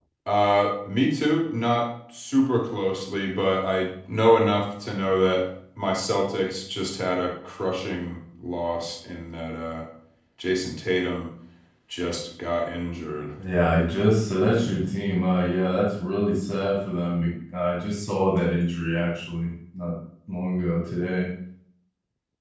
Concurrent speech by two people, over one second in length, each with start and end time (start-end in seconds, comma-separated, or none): none